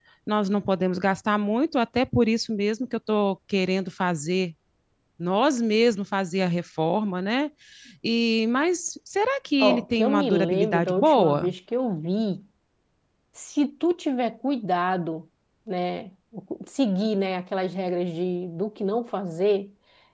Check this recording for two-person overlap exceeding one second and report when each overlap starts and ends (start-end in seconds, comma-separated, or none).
9.6-11.5